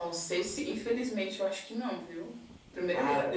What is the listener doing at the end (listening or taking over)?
taking over